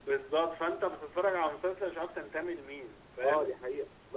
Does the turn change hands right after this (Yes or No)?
Yes